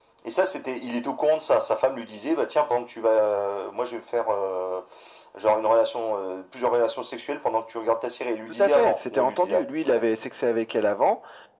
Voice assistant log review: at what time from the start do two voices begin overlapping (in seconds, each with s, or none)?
8.6 s